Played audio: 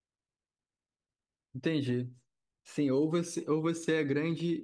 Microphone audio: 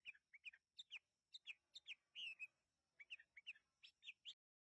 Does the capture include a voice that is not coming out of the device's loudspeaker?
No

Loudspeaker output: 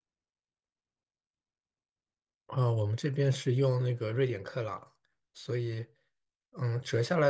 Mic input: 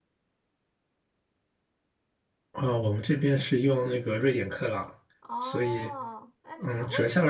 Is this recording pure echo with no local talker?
No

